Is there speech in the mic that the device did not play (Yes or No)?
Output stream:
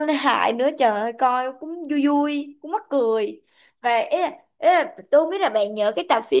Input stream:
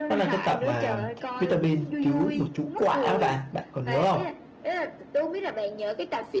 Yes